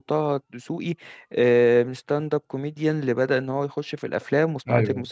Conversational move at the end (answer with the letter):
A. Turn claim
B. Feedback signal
A